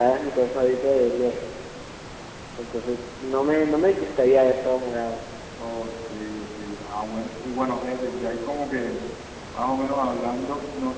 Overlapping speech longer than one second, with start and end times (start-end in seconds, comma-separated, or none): none